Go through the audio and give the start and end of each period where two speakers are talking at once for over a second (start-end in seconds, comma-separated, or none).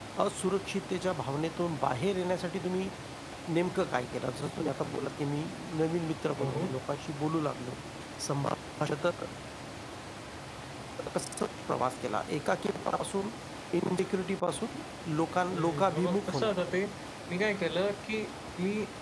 15.5-16.8